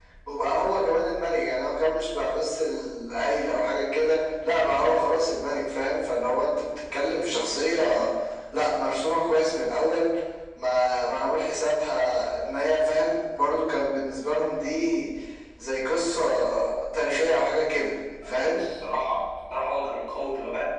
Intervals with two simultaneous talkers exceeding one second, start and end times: none

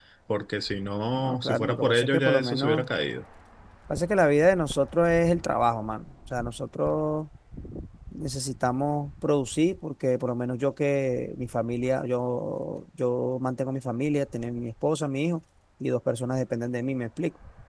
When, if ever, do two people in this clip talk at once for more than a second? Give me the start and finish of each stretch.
1.2-2.9

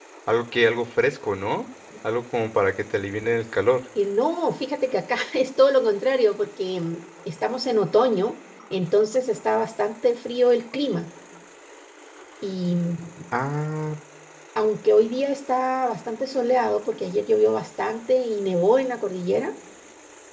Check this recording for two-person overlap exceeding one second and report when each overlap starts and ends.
none

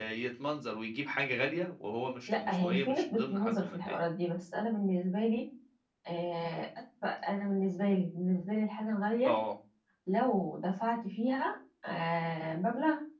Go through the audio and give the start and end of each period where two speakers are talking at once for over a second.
2.3-4.0

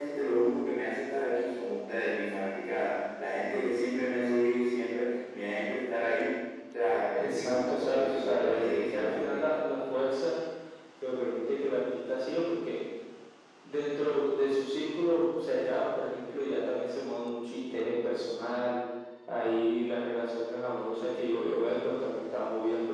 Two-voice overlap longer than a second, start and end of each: 7.2-9.4

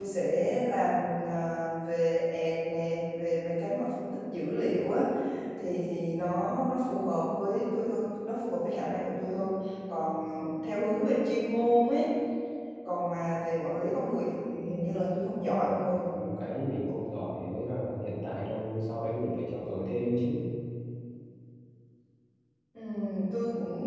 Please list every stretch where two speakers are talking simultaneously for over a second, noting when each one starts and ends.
none

